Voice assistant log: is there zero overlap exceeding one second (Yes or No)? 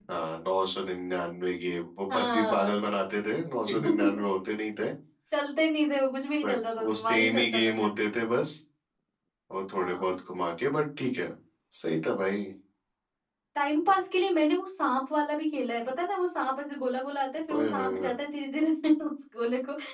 No